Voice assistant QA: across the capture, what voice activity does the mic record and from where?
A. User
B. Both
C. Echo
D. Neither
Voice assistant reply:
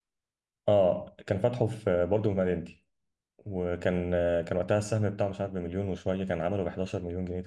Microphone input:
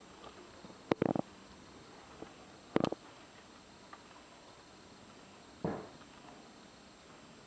D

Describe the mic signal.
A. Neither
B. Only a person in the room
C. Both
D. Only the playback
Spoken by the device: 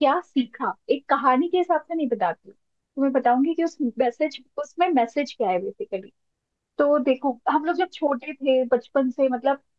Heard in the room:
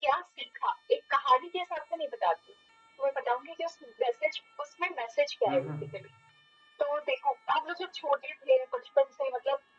C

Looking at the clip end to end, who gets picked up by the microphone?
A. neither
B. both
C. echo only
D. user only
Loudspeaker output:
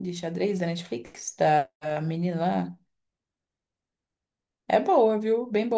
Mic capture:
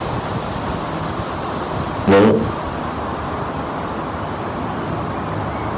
D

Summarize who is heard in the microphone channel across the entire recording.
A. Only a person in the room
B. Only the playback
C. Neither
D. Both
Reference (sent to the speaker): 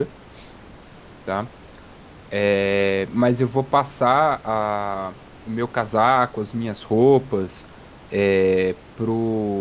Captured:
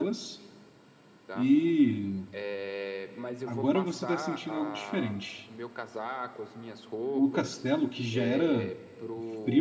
D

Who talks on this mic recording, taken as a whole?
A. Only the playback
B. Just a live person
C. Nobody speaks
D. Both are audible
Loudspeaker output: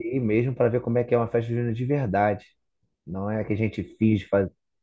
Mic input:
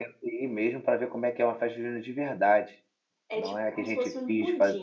D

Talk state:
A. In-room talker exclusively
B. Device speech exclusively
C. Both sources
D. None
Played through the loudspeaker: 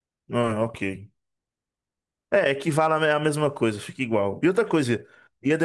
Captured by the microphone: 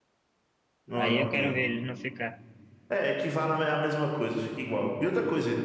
C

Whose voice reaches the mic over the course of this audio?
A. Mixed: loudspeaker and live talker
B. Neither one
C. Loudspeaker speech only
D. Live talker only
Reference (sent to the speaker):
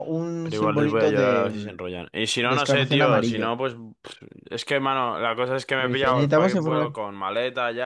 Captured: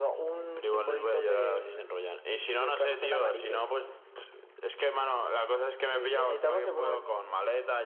C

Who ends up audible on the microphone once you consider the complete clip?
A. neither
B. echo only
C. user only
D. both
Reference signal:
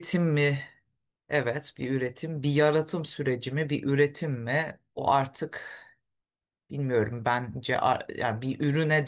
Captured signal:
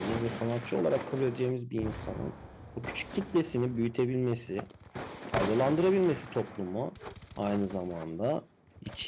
C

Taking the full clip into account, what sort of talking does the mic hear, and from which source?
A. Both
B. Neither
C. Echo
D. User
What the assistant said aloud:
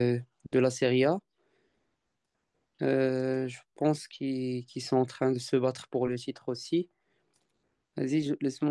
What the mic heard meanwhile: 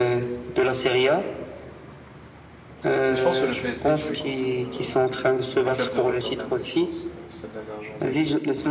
A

